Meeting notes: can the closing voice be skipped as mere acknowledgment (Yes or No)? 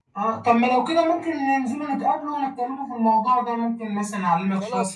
No